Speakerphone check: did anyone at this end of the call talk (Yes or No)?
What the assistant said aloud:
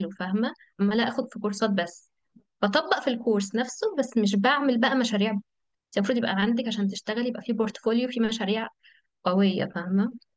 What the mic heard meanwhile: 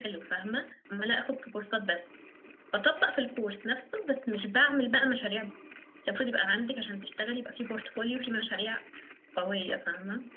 No